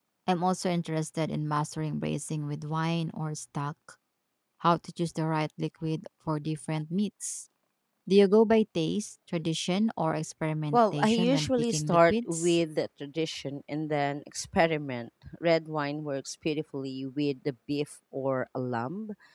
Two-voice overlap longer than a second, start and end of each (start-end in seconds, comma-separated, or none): 10.7-12.6